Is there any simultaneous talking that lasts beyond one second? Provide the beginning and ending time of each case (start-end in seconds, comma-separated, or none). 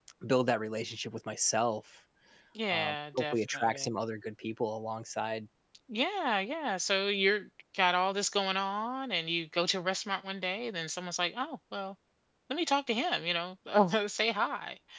2.7-3.9